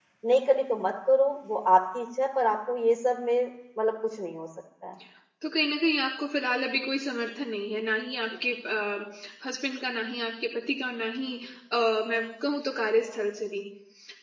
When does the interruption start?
none

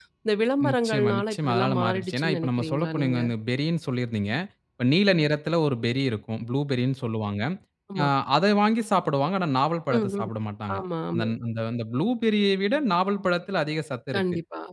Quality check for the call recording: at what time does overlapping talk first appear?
1 s

